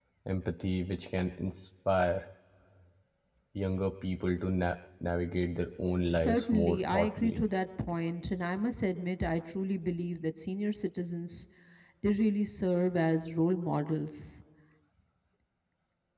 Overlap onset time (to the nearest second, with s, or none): 6 s